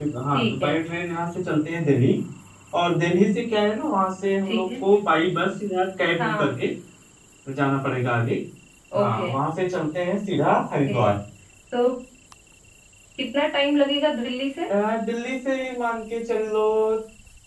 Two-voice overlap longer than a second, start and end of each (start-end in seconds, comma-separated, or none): none